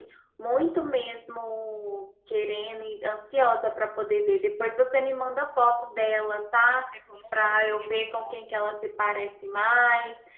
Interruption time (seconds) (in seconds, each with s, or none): 7.4 s